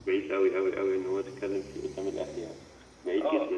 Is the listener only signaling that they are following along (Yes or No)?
No